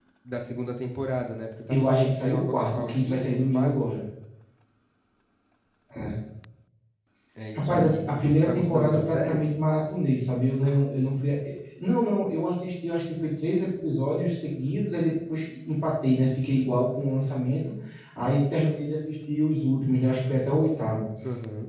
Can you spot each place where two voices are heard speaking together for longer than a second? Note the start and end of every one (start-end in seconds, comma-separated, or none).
1.7-4.0, 7.6-9.4